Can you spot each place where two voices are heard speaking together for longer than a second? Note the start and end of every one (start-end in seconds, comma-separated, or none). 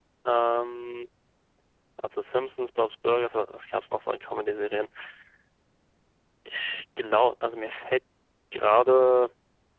none